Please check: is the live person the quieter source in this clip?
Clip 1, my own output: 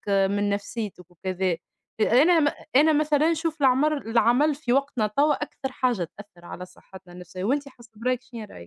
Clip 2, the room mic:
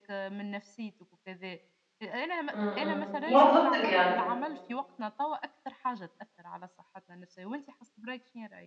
No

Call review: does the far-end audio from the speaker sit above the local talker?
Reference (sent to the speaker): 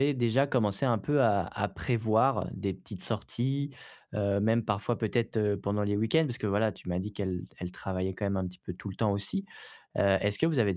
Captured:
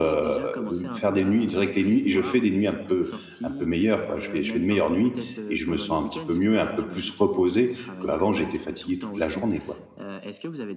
No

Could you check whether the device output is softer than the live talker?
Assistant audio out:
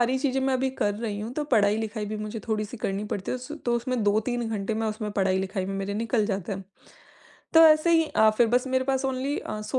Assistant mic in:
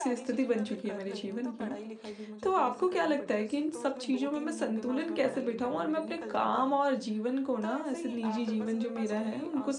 Yes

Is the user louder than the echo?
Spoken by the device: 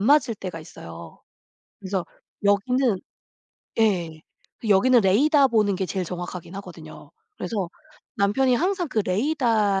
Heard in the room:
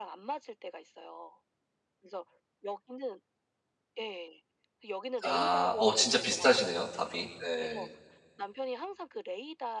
Yes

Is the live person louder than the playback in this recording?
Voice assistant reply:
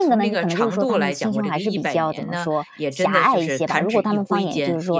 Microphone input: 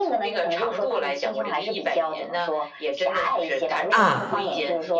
Yes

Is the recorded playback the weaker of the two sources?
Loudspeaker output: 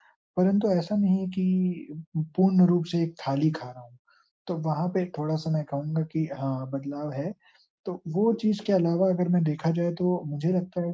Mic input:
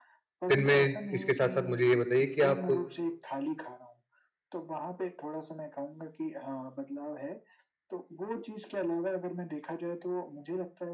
Yes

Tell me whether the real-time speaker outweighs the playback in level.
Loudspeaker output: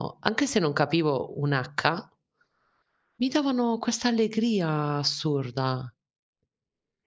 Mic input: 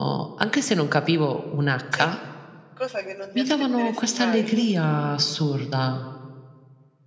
No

